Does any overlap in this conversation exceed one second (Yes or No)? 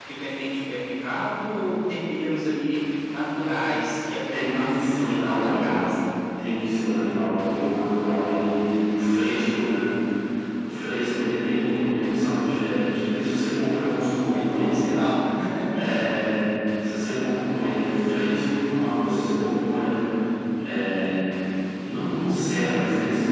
Yes